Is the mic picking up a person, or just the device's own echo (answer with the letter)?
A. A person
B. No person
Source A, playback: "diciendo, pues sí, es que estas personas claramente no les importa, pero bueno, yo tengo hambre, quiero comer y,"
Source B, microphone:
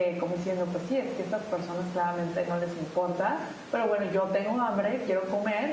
B